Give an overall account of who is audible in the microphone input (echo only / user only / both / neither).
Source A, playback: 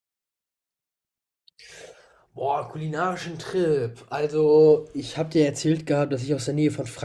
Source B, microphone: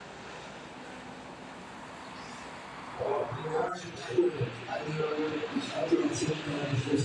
echo only